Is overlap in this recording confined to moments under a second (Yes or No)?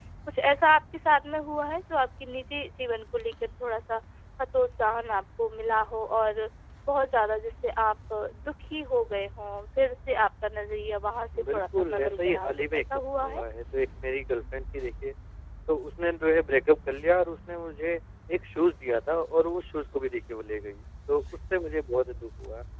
No